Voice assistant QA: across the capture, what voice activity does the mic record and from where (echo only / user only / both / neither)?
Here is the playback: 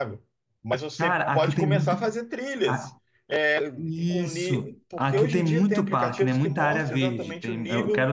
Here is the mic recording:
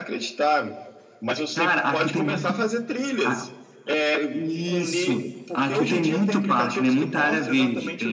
echo only